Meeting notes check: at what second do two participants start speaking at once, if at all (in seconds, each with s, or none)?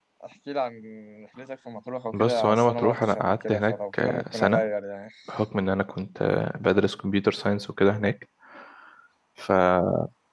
2.1 s